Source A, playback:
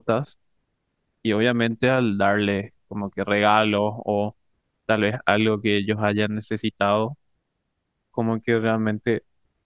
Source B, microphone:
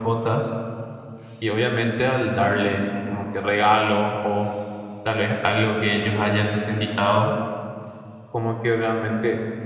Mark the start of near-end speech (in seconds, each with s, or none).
none